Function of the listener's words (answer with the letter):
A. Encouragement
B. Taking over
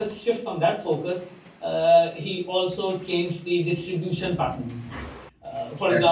A